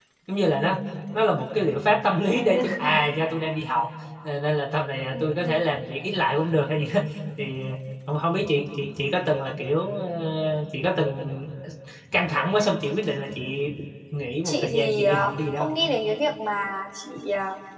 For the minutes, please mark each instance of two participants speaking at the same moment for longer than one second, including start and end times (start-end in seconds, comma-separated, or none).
14.4-15.7